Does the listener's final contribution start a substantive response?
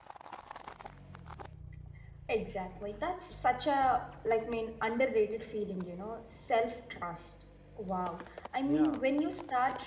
No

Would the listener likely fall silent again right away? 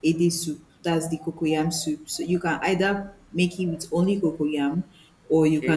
Yes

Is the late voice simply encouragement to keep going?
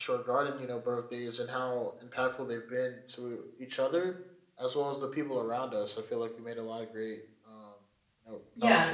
No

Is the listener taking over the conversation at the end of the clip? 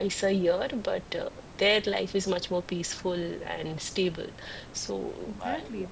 Yes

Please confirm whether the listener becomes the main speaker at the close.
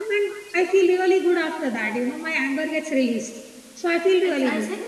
Yes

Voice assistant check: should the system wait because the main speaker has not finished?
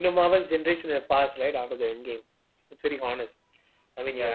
Yes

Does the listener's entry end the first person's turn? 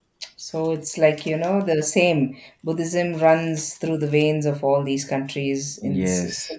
Yes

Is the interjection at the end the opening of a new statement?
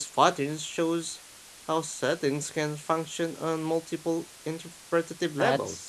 Yes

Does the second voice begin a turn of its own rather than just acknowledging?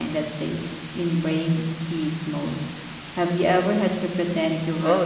Yes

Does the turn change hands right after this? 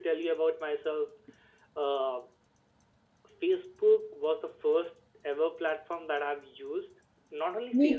No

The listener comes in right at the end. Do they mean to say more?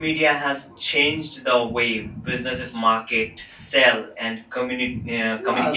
Yes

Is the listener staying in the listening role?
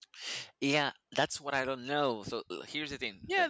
No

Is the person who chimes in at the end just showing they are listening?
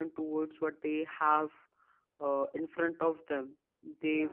Yes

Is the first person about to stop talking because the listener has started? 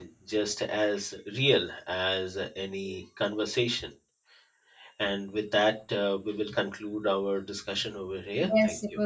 Yes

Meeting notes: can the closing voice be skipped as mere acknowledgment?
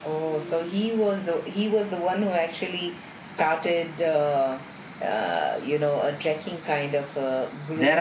No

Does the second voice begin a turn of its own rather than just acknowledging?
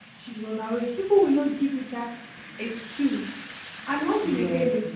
No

